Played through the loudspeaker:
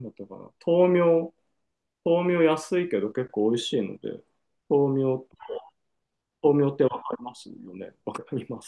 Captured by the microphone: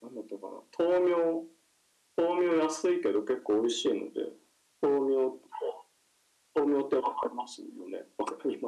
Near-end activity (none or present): none